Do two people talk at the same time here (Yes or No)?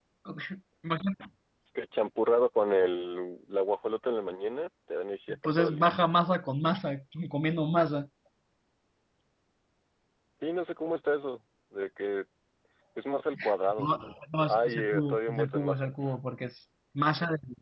Yes